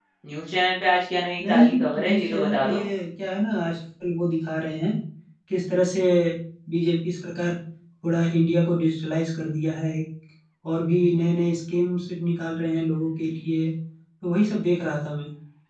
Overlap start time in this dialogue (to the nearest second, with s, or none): 1 s